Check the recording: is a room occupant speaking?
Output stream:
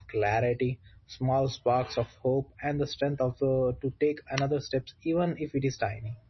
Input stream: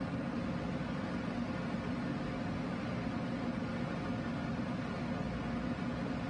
No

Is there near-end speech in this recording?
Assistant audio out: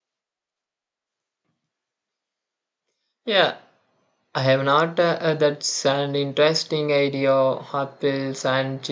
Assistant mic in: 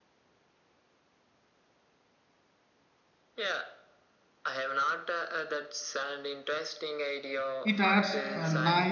Yes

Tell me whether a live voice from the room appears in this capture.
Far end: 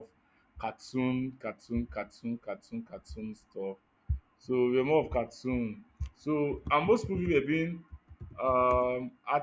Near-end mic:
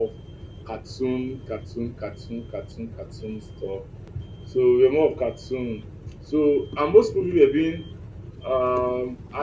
No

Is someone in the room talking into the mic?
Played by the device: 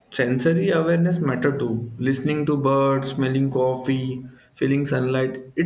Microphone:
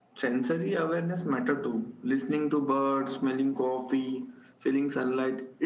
No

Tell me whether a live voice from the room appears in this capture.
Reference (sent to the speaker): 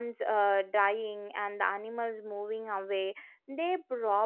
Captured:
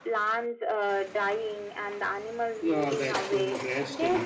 Yes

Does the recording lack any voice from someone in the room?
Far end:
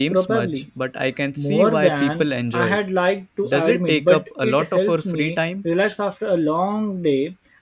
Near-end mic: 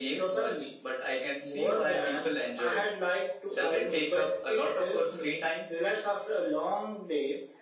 Yes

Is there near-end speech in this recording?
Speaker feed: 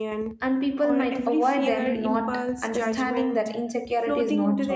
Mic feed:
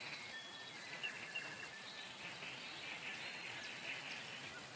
No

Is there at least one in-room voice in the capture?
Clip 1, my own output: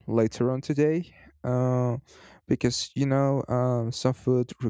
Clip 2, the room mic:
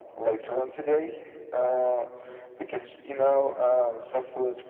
No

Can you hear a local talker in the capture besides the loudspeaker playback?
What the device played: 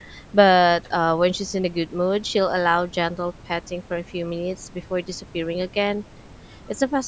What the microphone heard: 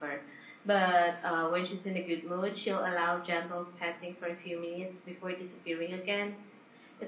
No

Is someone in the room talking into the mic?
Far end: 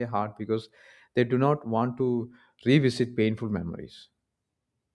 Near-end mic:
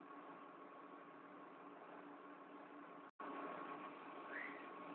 No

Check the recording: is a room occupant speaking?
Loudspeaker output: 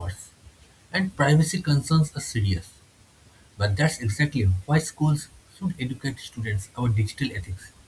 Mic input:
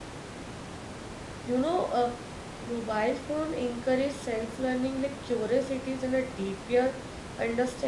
Yes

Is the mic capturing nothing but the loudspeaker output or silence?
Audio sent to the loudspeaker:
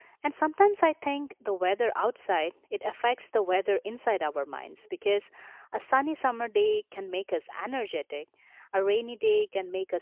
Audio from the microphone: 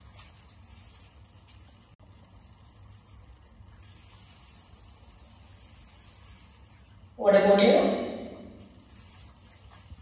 No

